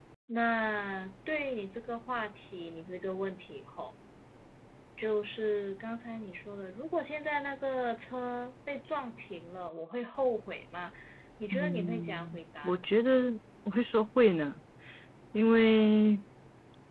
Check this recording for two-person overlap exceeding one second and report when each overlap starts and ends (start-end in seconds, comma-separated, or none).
11.5-12.8